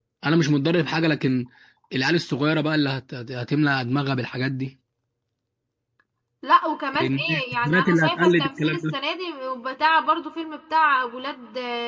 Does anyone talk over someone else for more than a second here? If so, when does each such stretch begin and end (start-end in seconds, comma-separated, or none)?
7.0-8.9